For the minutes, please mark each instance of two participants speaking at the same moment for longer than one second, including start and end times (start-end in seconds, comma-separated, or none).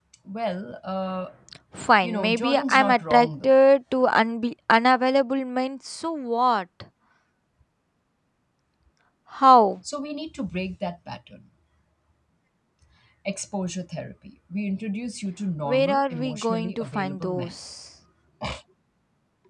2.0-3.5, 15.7-17.6